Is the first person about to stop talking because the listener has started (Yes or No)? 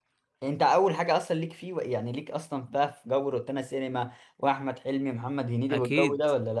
Yes